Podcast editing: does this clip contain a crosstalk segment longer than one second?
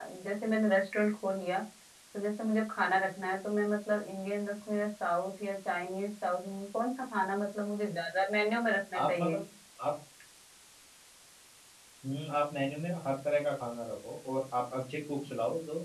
No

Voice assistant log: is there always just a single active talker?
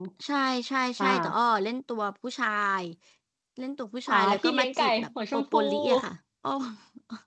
No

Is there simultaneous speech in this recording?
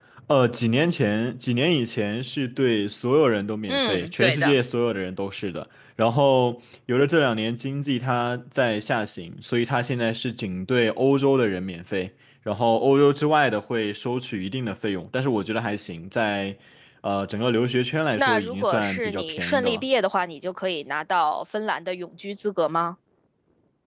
Yes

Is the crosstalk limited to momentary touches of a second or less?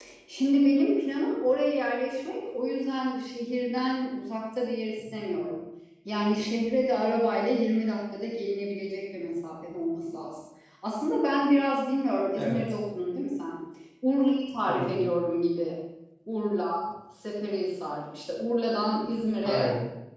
Yes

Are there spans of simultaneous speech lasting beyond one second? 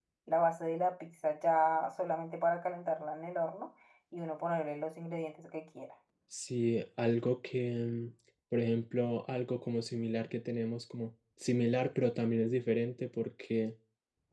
No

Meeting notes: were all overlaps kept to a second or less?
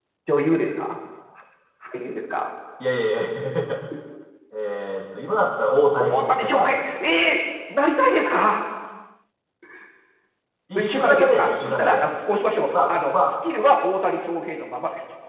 No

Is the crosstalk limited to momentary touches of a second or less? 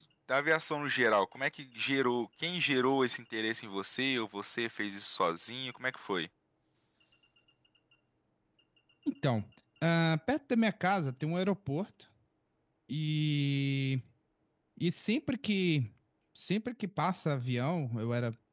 Yes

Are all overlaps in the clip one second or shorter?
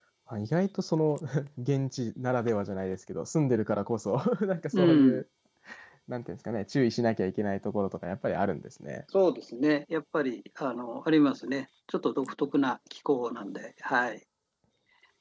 Yes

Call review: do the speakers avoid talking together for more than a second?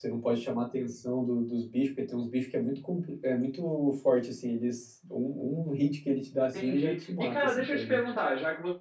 No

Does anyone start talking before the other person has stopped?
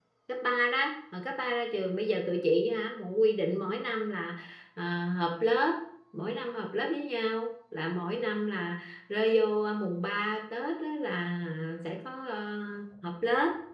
No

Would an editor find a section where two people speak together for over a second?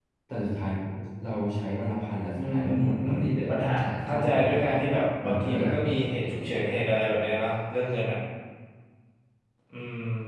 Yes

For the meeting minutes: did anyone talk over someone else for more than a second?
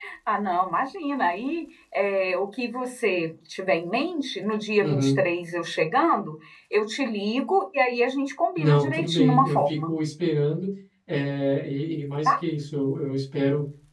Yes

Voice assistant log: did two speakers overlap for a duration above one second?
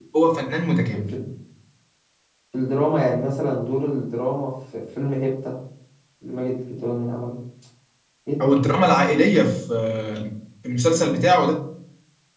No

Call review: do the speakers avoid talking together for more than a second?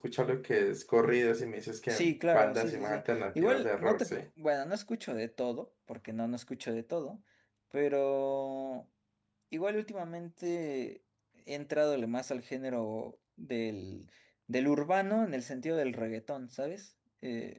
No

